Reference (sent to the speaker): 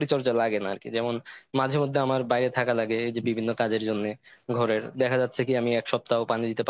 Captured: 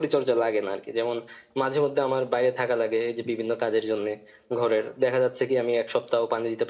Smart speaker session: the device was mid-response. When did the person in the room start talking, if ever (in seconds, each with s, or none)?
none